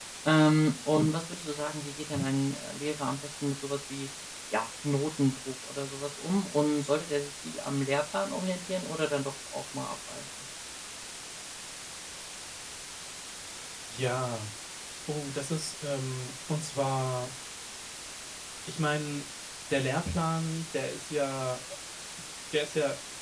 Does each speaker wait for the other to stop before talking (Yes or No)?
Yes